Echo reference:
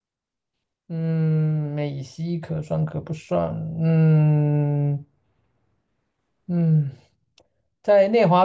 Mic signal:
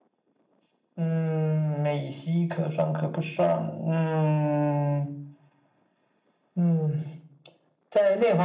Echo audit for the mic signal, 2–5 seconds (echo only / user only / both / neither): echo only